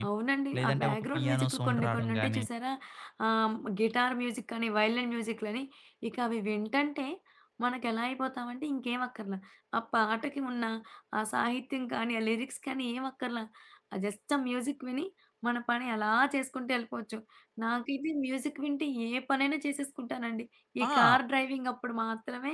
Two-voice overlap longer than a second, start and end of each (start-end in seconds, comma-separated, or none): 0.6-2.4